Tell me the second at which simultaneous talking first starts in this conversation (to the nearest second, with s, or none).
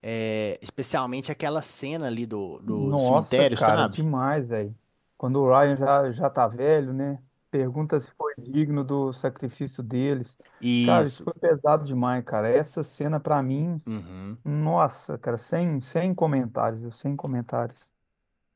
3 s